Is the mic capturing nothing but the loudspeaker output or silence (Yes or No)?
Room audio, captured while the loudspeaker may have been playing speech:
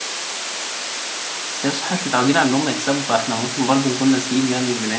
No